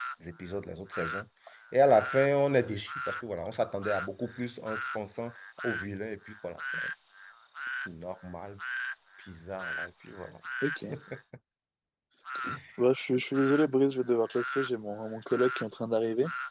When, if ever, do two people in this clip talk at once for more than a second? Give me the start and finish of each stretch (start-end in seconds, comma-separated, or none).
none